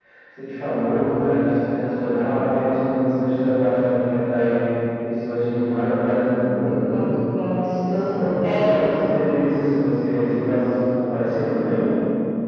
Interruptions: present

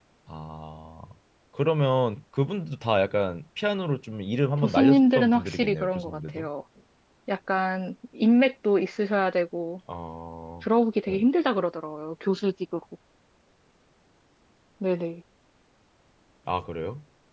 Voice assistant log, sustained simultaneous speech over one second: present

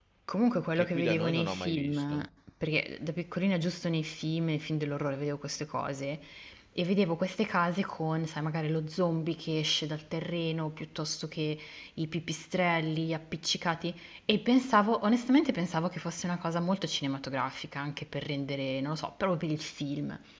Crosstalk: present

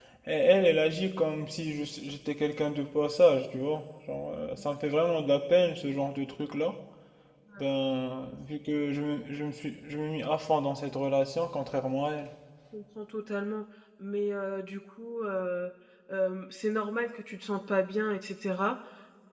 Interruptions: none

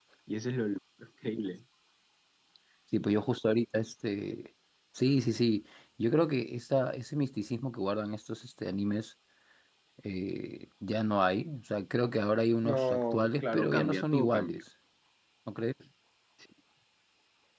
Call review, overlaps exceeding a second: present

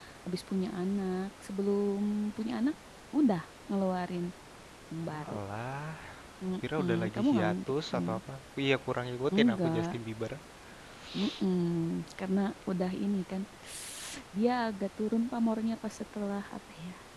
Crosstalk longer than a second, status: present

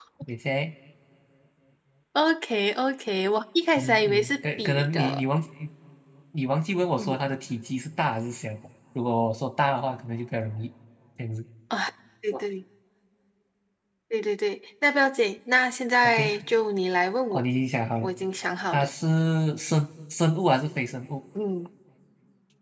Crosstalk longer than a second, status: present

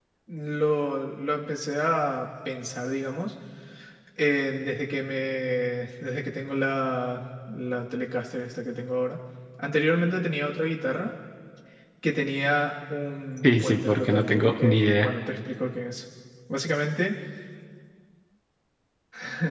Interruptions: present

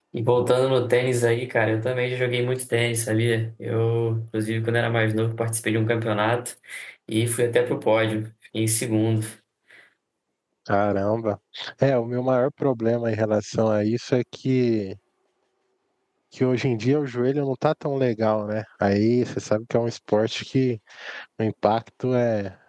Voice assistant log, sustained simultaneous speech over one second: none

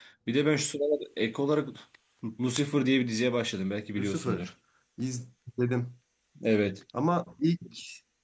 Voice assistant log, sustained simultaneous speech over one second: none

